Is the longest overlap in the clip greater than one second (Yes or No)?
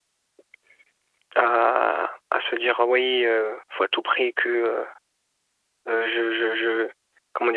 No